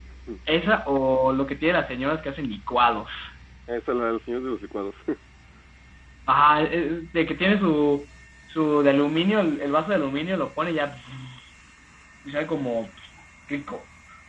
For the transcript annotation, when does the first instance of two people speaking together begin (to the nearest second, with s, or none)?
none